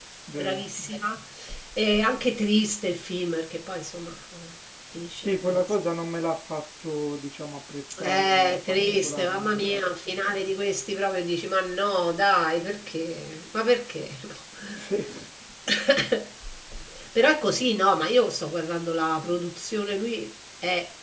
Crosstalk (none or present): present